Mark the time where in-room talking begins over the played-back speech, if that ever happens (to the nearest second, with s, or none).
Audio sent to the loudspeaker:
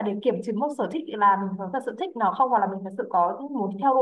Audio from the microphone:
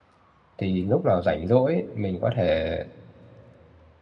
1 s